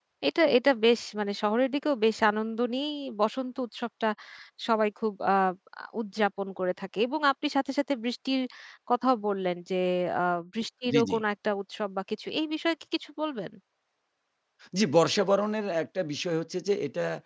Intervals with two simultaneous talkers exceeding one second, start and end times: none

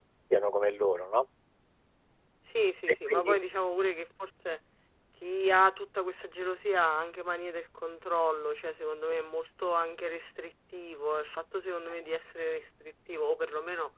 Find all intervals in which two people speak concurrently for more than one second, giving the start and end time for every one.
none

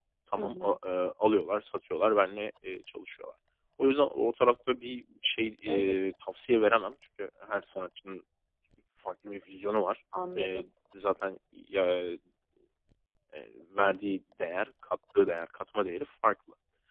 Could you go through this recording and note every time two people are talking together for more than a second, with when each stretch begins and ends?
none

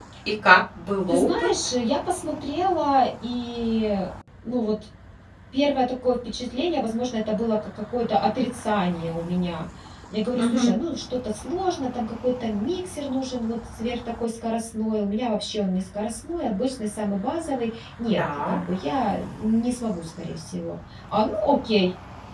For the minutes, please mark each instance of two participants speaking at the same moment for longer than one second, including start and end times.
none

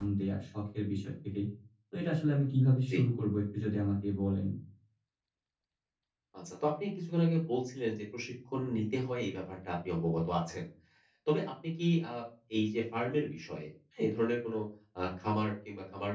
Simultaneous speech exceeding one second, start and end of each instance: none

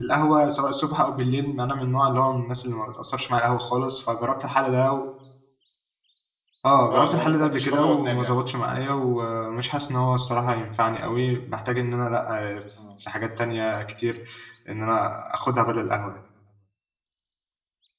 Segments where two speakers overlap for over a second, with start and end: 6.9-8.3

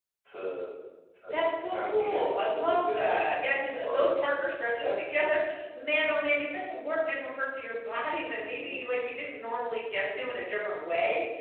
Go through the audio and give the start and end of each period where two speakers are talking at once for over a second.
1.3-3.3

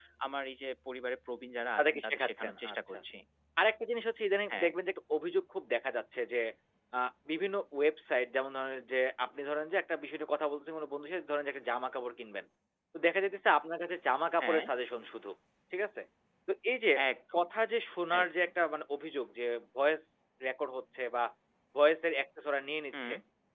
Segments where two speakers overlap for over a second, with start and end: 1.8-3.0

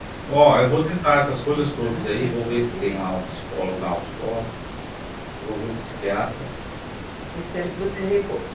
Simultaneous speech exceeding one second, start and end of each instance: 1.5-3.0

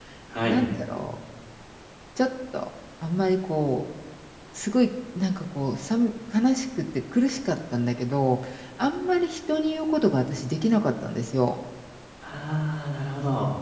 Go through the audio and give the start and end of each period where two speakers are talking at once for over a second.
none

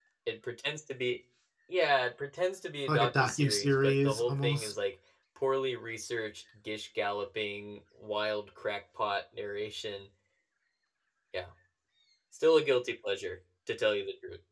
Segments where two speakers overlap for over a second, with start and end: 2.9-4.7

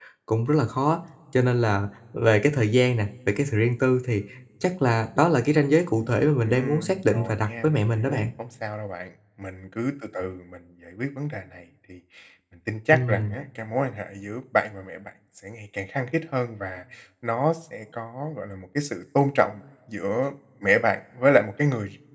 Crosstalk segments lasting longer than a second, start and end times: 6.4-8.2

